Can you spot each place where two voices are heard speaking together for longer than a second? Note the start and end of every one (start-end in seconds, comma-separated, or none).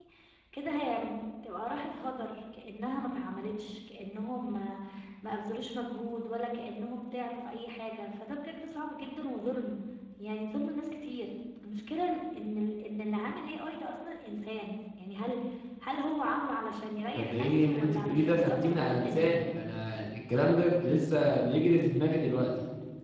17.2-19.3